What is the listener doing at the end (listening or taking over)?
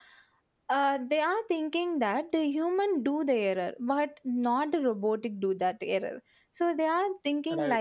listening